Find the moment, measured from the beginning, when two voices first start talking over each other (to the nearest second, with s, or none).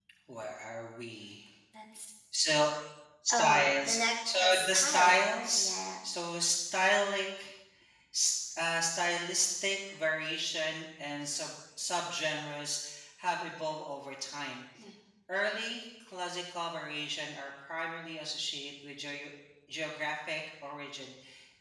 3 s